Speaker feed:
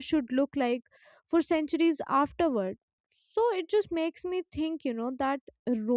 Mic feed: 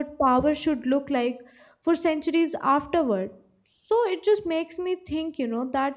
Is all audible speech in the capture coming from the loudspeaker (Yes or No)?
Yes